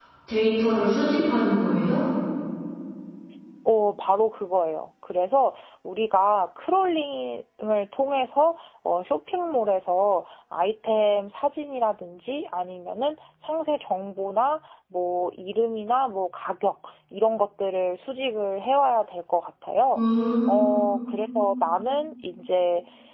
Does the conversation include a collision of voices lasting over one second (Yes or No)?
No